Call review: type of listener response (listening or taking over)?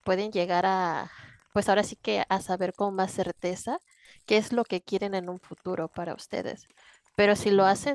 listening